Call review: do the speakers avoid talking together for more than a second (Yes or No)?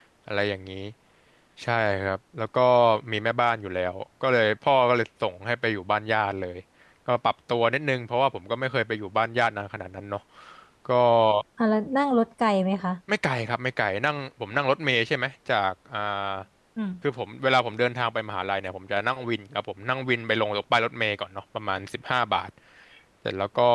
Yes